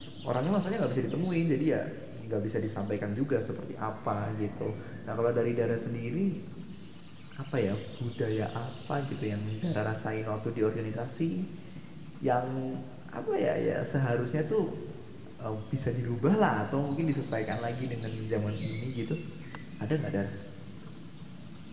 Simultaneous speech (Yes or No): No